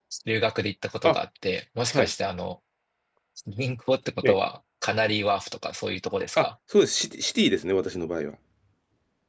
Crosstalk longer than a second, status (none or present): none